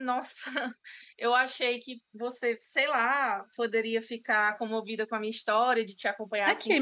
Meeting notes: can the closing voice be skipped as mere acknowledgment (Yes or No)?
No